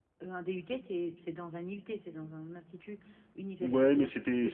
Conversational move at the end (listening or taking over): taking over